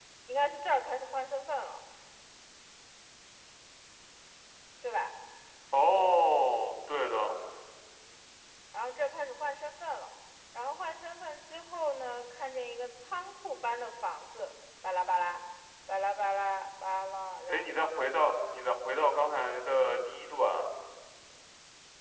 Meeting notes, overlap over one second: none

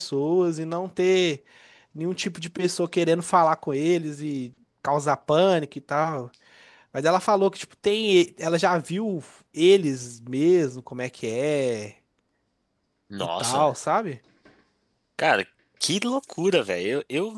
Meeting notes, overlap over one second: none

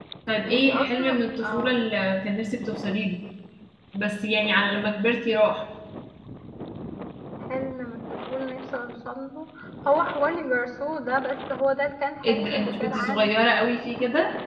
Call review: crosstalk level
present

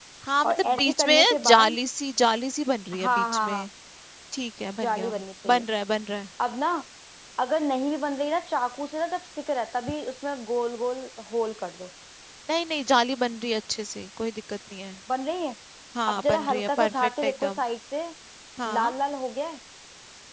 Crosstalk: present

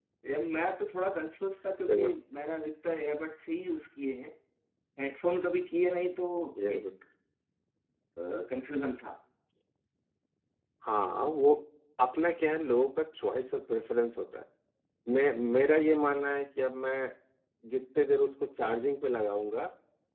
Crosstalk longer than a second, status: none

